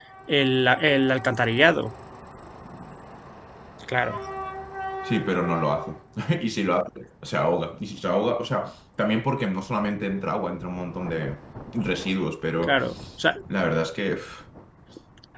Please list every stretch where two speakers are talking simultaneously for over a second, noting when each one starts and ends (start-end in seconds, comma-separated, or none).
none